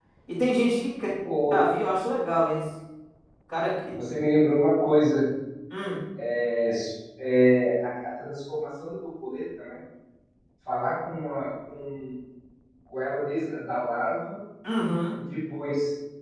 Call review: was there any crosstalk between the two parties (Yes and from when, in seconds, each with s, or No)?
No